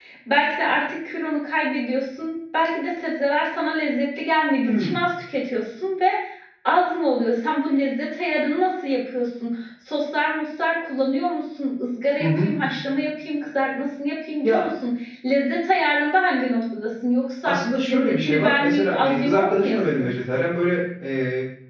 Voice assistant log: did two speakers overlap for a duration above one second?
Yes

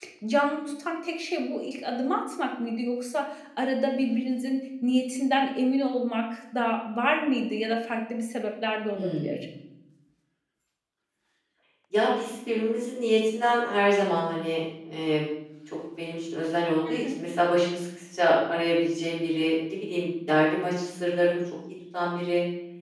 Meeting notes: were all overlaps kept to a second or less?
Yes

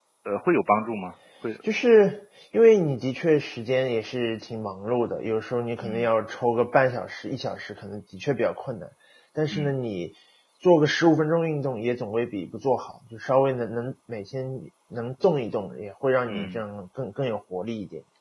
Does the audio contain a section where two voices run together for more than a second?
No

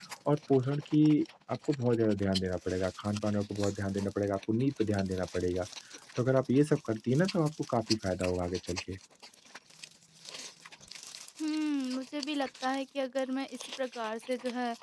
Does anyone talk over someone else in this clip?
No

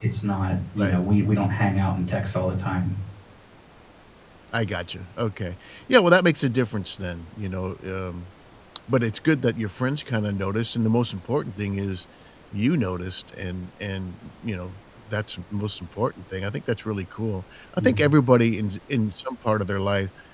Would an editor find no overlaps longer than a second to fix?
Yes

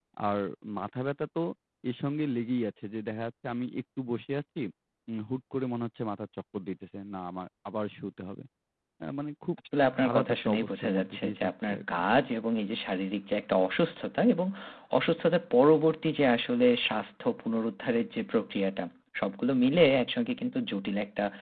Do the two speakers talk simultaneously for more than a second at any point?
Yes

